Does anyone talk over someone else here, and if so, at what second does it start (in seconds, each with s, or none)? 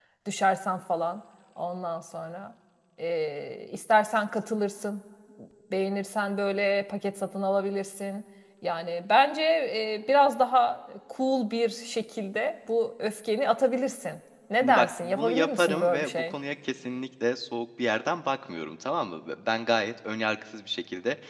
14.6 s